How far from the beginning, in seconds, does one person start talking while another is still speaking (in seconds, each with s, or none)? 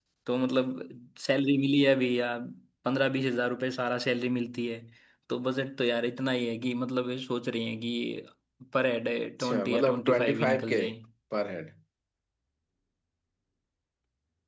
9.4 s